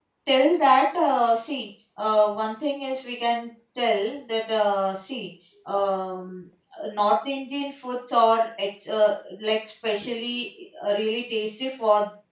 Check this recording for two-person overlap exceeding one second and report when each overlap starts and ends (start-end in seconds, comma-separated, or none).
none